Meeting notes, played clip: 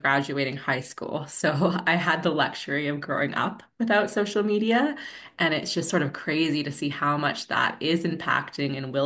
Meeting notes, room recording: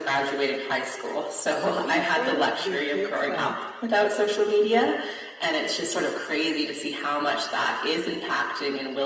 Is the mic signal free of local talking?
No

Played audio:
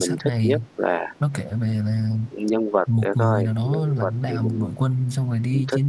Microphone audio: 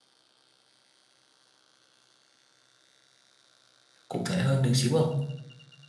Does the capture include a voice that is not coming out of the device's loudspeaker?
Yes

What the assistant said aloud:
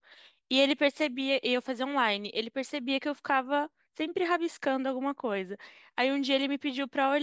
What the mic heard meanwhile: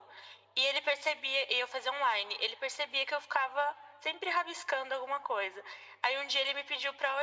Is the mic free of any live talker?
Yes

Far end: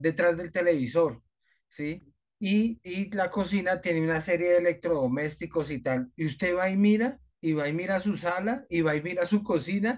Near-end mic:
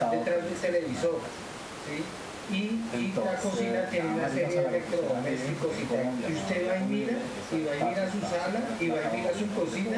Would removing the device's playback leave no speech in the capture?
No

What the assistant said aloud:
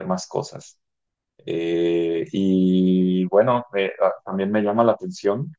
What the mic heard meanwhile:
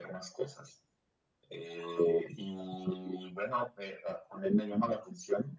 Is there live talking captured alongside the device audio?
No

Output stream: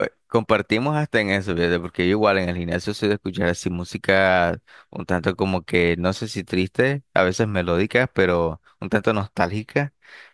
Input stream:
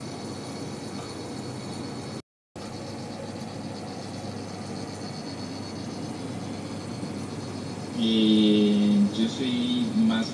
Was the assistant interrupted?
Yes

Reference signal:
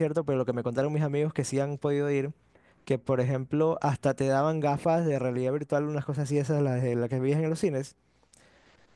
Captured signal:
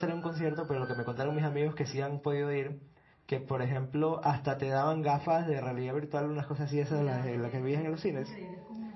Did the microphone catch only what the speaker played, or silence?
No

